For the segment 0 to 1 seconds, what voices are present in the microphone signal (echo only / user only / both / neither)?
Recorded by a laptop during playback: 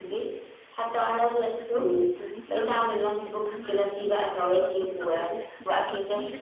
echo only